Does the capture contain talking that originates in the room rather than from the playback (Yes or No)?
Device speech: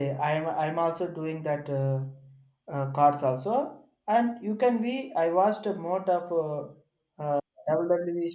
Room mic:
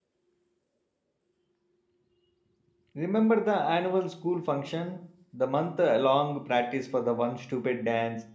Yes